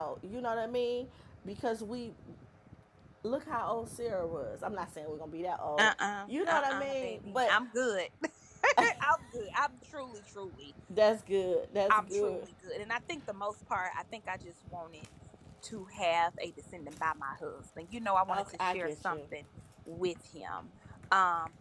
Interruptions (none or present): present